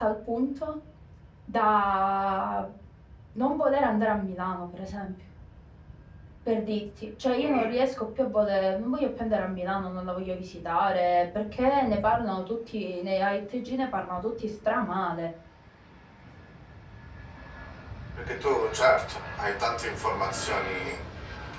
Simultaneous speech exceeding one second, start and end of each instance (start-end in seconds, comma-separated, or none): none